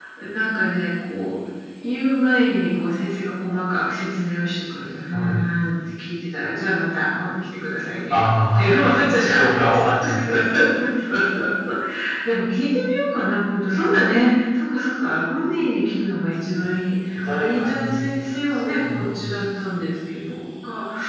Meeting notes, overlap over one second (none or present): present